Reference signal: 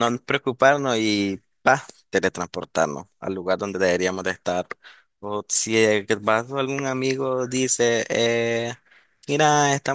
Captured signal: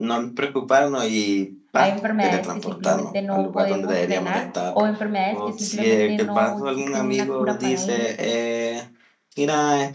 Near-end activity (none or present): present